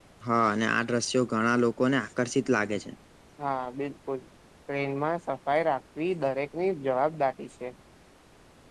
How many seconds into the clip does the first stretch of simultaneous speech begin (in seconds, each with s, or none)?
none